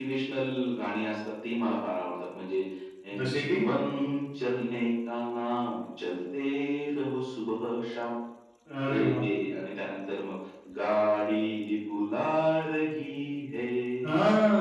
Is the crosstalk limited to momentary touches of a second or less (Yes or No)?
Yes